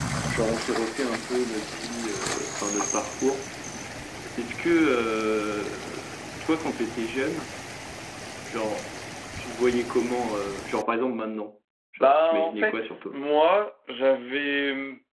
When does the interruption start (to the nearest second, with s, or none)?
12 s